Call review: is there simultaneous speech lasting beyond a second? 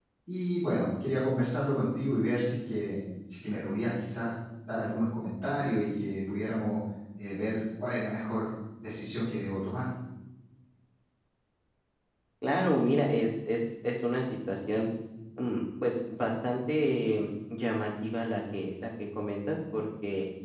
No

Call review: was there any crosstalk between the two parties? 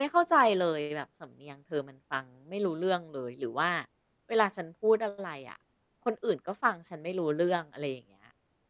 No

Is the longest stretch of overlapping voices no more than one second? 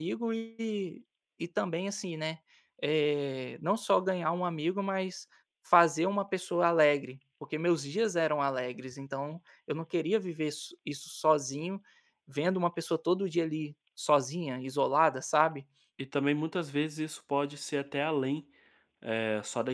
Yes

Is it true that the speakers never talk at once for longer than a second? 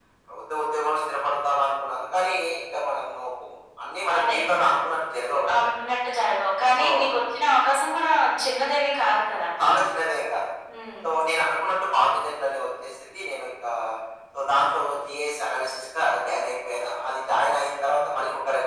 Yes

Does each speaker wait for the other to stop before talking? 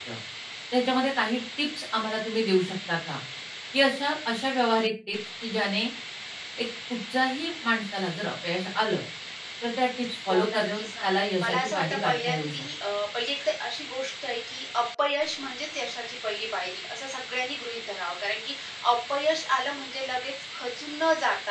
No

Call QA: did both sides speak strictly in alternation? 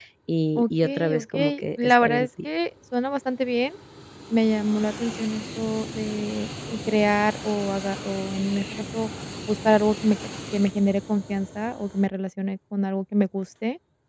No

